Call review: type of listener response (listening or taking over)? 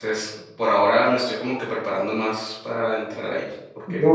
taking over